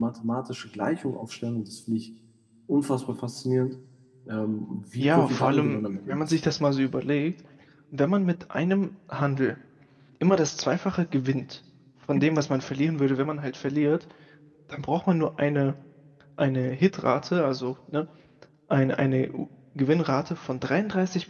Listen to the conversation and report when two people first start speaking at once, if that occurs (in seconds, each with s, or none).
5.0 s